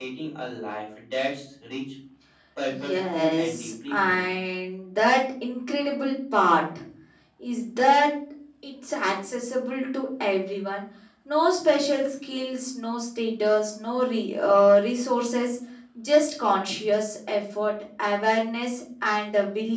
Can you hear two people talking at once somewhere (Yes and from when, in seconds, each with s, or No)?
Yes, from 2.7 s